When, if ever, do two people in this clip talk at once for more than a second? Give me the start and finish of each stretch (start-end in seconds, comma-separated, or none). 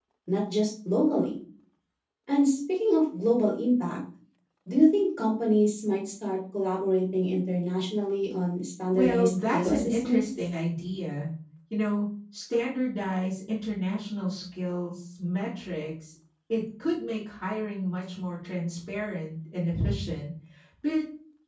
8.9-10.2